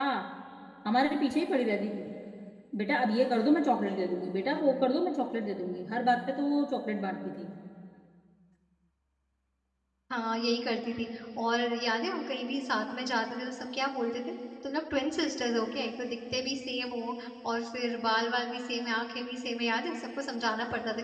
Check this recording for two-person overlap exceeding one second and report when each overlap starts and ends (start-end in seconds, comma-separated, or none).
none